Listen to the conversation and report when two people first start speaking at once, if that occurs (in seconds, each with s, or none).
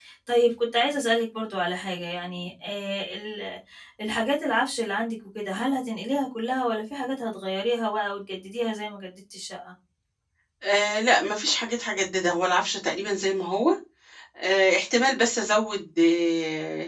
none